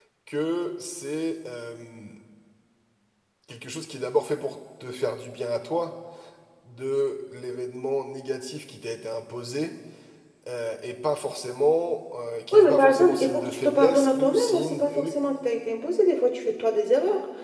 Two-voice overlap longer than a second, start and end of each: 12.5-15.2

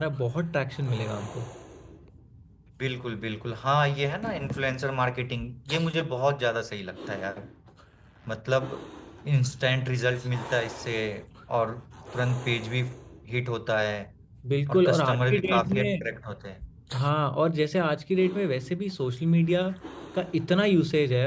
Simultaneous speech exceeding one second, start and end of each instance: 14.7-16.1

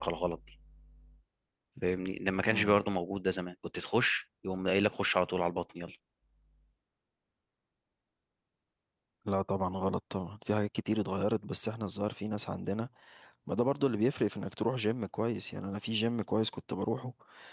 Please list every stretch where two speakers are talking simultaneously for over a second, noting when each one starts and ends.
none

